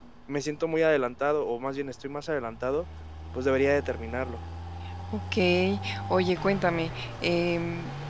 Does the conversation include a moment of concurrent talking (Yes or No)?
No